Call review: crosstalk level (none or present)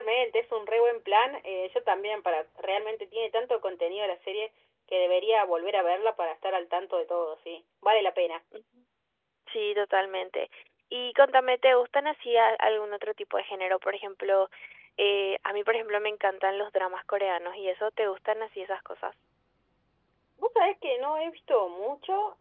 none